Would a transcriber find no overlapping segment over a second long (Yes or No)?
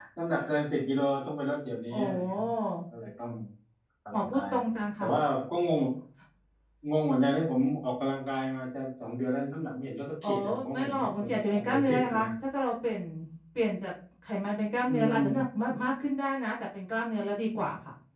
No